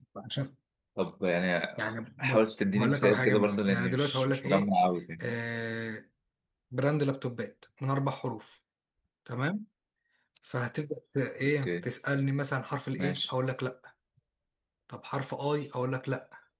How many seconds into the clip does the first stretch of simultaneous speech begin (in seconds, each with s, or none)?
2.2 s